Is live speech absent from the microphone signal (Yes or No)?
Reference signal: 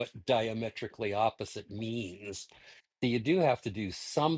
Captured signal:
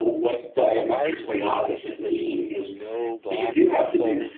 No